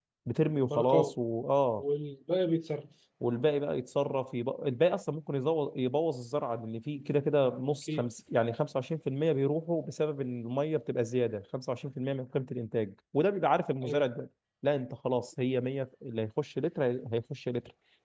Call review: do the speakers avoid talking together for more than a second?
Yes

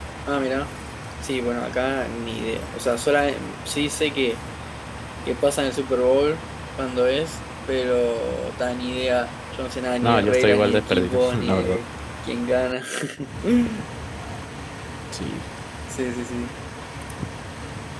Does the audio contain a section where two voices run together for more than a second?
Yes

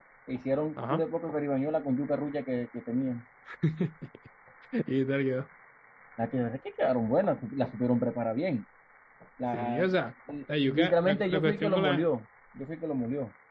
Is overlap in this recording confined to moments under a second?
No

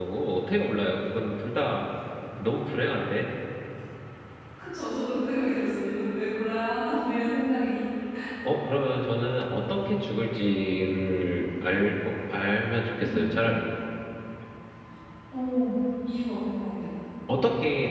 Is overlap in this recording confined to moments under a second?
Yes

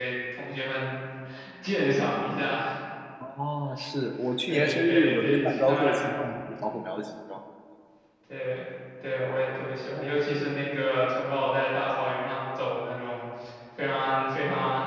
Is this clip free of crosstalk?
No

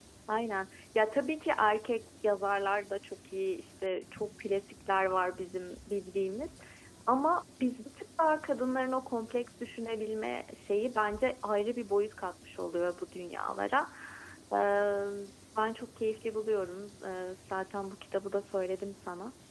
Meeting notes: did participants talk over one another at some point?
No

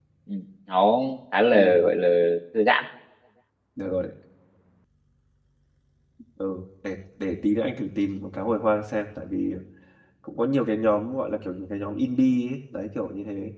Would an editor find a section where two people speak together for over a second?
No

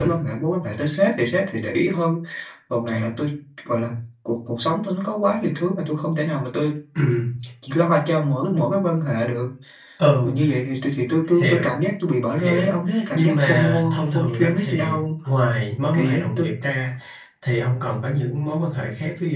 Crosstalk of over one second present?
Yes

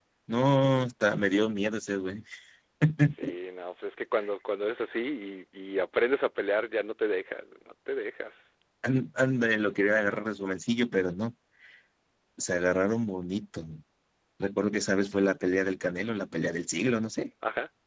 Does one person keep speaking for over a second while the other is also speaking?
No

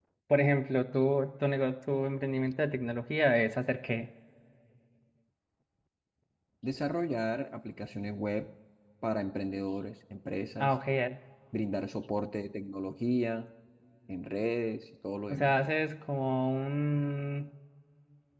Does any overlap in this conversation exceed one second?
No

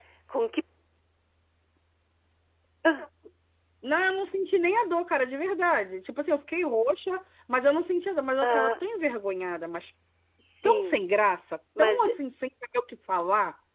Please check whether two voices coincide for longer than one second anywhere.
No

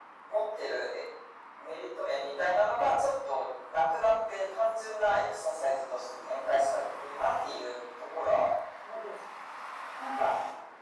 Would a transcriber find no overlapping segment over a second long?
Yes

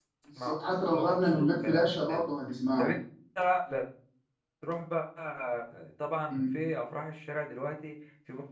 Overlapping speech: Yes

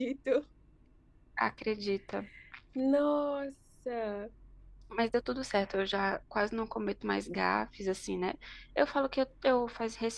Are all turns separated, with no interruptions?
Yes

